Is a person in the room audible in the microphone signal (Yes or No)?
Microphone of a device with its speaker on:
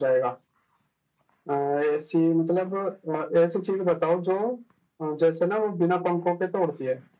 No